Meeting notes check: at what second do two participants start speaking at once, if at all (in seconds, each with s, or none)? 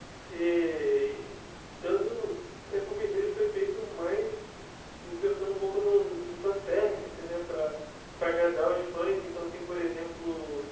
none